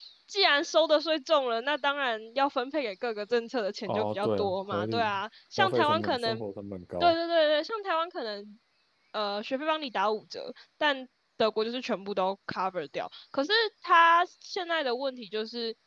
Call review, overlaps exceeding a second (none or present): present